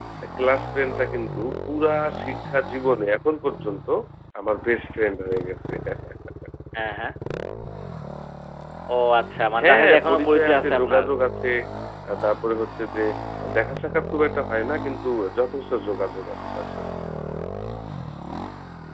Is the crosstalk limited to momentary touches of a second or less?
No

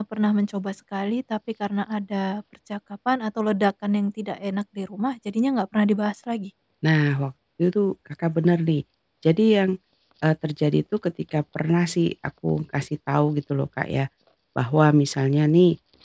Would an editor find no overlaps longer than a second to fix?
Yes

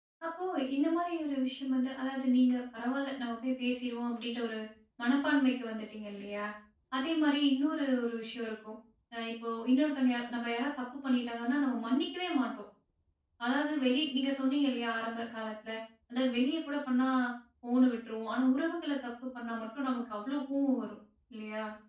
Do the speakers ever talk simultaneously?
No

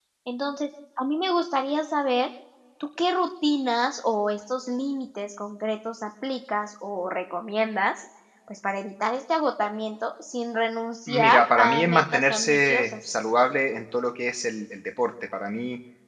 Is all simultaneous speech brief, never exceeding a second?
No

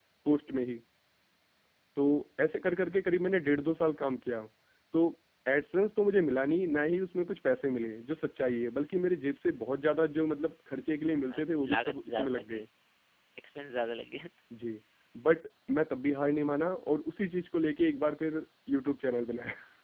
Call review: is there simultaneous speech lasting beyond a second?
Yes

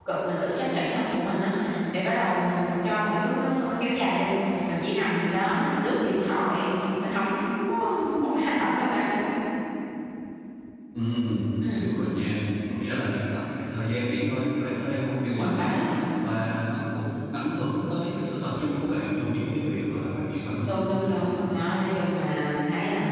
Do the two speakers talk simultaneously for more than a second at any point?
No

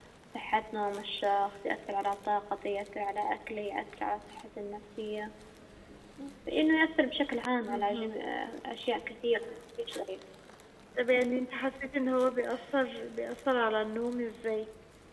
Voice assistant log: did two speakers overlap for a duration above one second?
No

